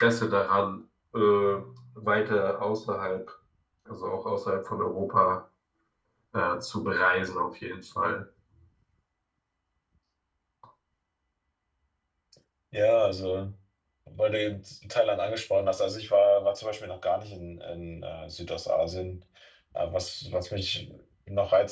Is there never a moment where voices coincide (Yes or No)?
Yes